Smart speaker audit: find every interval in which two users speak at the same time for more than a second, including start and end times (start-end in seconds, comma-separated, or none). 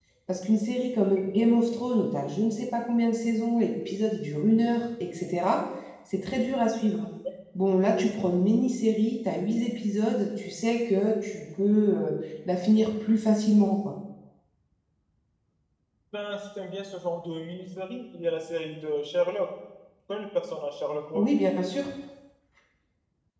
none